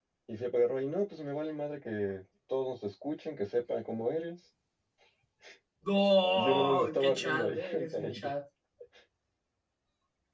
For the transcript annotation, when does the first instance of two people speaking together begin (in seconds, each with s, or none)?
6.4 s